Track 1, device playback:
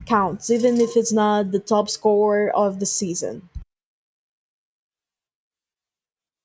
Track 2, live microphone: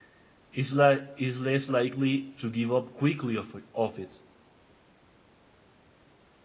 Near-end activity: present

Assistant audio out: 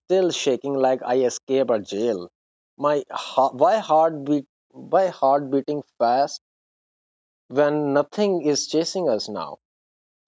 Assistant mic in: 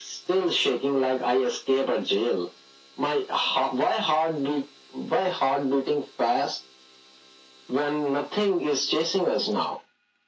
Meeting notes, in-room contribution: none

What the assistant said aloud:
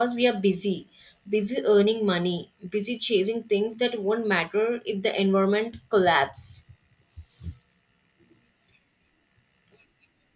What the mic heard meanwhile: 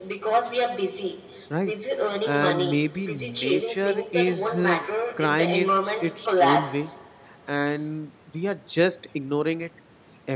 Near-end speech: present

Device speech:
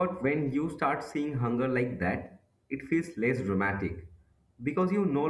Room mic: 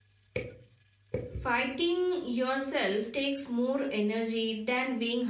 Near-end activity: present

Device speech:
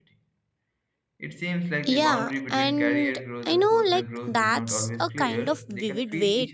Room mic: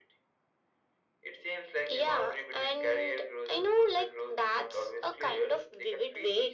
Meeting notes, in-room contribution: none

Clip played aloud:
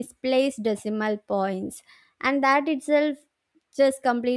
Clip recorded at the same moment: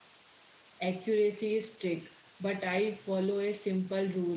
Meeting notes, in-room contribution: present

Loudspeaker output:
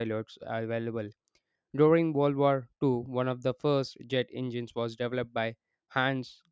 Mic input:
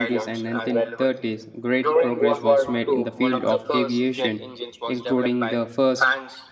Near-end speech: present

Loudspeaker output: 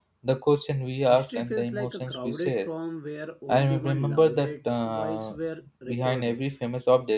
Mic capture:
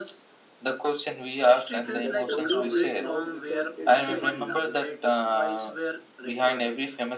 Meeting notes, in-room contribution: present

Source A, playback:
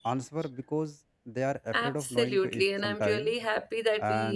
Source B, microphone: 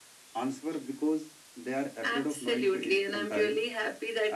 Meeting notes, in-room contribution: none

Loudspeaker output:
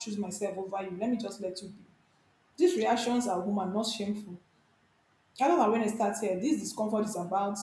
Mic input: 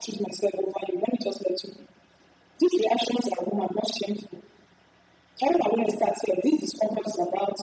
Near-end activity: none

